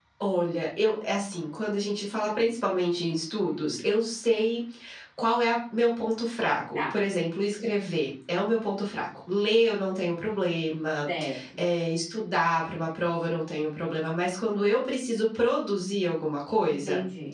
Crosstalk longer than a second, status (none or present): none